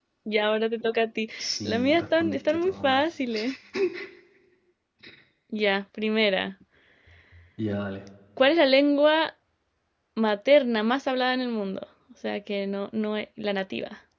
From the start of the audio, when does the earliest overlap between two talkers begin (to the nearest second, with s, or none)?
2 s